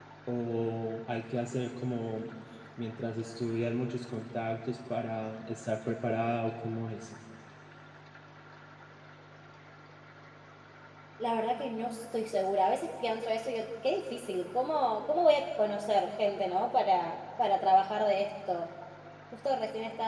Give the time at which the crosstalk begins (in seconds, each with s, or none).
none